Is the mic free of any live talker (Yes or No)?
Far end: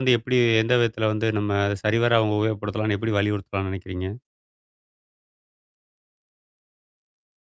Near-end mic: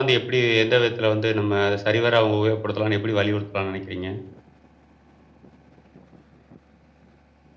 Yes